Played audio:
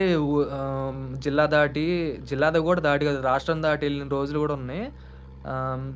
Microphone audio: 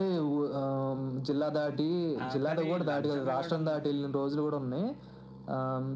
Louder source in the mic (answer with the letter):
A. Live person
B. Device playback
B